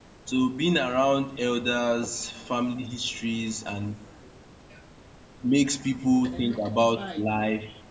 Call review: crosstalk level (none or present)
present